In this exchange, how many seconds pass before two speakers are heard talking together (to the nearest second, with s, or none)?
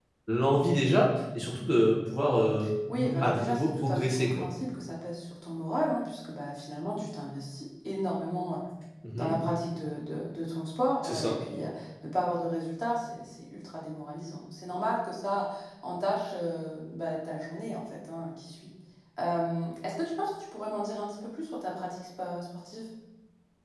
3 s